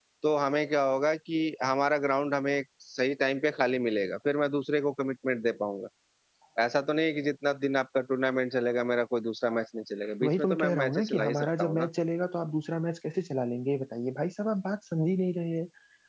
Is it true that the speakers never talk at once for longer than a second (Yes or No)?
No